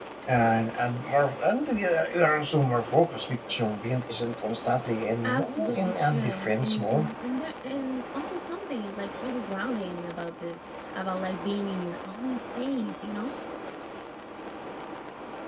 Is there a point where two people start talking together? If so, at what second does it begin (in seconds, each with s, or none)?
5.2 s